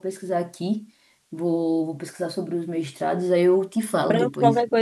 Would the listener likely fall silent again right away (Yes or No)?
No